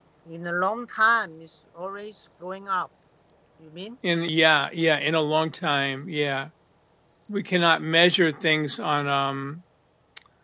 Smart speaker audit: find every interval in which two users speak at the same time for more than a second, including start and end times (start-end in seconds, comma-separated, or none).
none